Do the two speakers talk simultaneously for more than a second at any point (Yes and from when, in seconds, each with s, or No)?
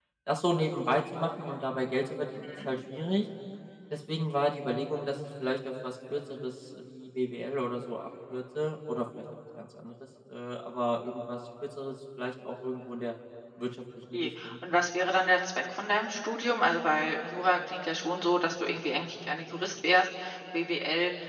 No